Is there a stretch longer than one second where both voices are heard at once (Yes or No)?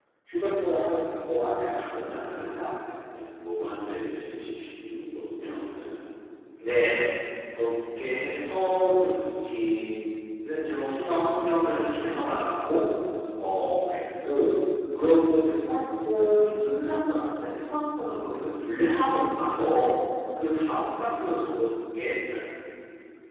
No